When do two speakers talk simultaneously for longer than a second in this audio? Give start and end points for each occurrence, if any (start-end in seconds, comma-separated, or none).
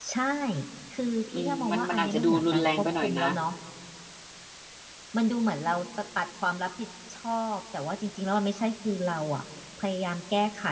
1.4-3.3